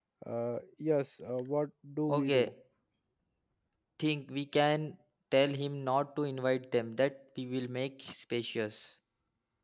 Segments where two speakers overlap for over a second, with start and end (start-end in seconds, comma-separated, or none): none